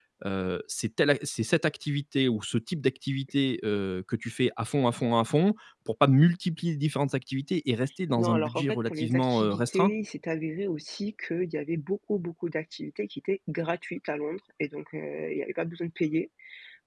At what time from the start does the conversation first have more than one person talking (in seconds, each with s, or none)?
8.2 s